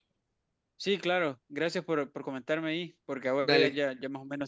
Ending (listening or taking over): listening